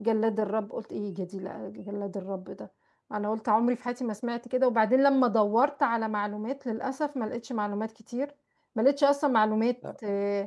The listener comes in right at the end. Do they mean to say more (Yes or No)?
No